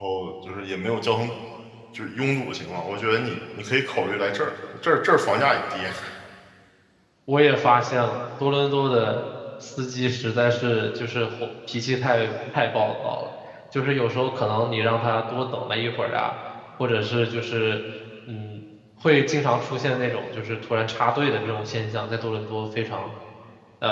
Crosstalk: none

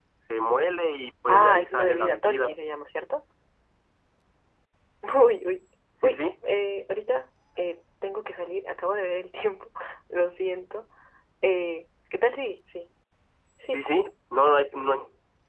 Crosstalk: present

